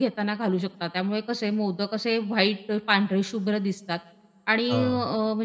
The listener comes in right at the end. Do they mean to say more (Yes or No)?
No